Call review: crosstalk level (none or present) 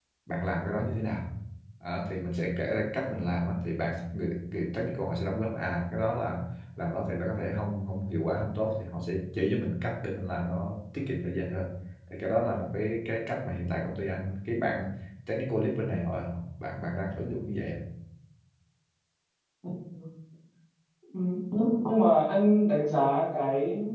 none